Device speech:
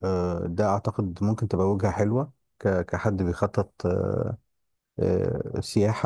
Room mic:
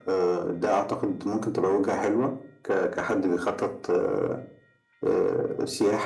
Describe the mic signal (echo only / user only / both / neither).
echo only